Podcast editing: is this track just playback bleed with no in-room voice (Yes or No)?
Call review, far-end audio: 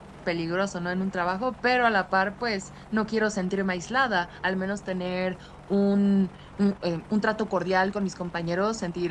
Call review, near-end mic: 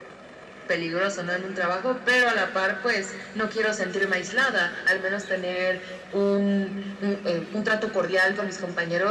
Yes